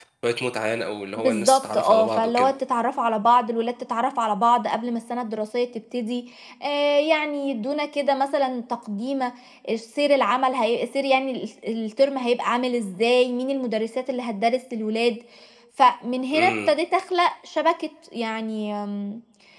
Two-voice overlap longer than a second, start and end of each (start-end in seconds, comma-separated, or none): 1.2-2.5